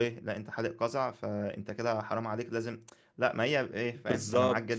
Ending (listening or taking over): taking over